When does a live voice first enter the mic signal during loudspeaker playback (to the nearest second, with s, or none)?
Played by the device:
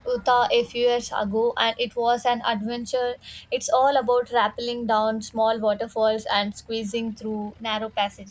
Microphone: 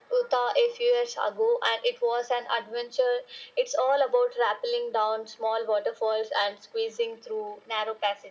none